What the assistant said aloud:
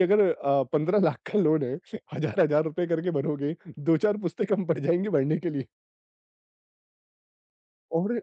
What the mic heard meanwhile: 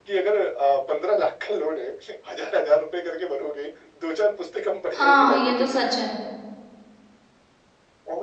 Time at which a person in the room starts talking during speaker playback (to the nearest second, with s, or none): 5 s